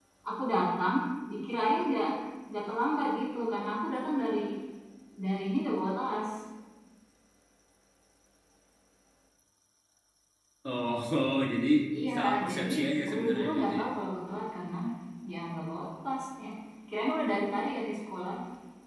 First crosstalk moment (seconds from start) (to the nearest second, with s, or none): 12 s